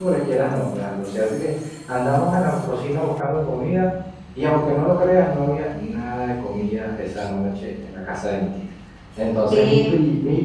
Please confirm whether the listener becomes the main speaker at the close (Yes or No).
No